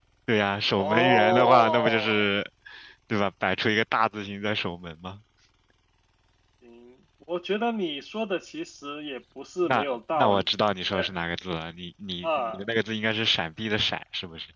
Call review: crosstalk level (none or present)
present